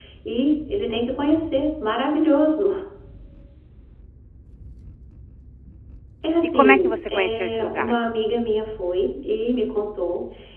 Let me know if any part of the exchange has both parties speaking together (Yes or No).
Yes